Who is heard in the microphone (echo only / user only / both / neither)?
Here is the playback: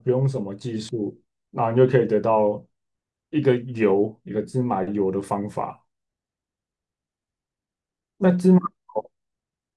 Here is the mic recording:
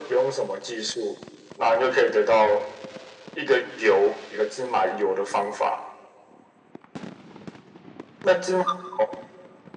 echo only